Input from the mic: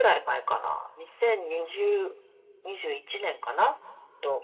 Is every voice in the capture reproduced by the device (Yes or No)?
Yes